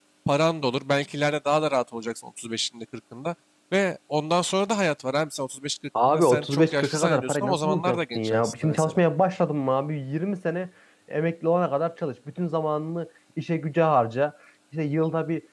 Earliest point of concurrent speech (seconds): 6 s

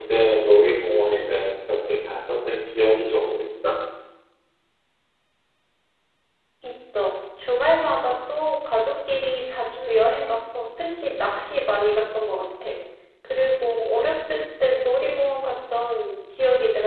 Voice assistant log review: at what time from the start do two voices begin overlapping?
none

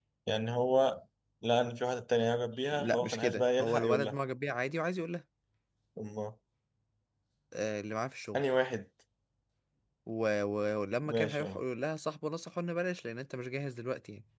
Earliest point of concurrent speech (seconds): 3 s

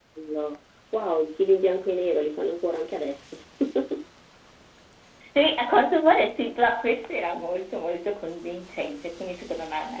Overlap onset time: none

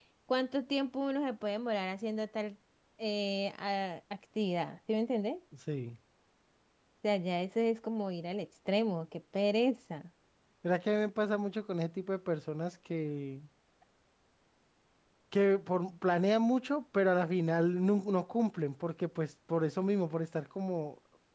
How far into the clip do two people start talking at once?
none

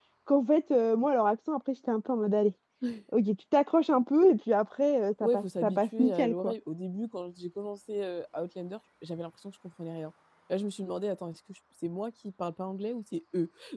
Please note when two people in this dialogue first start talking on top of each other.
5 s

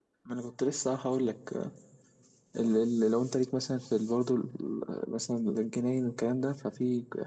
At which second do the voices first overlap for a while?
none

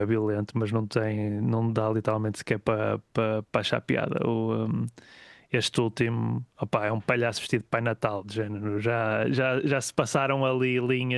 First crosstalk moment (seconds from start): none

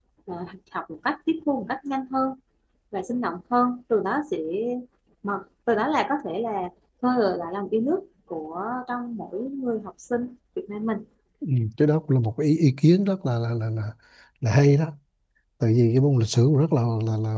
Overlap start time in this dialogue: none

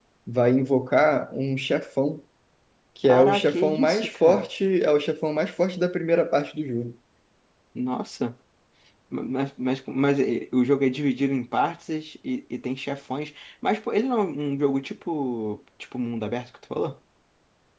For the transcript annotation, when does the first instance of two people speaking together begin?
3 s

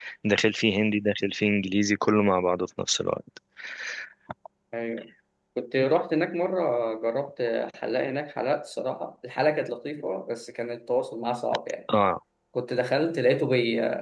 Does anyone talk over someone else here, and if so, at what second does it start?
none

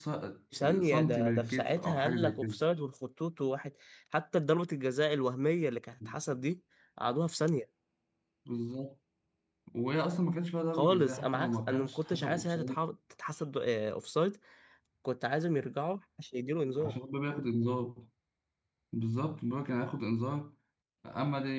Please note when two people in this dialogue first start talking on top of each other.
1 s

